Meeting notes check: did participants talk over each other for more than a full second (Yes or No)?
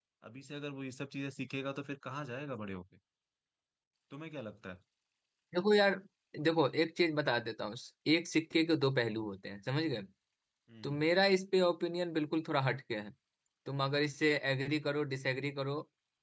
No